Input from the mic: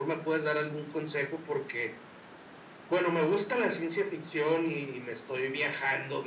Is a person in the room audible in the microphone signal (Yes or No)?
No